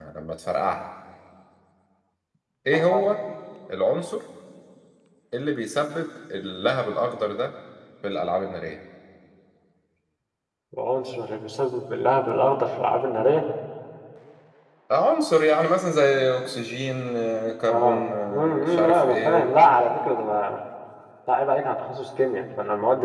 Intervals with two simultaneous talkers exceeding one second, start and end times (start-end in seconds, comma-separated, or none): 17.7-19.5